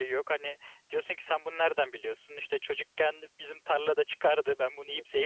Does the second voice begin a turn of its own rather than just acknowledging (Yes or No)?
No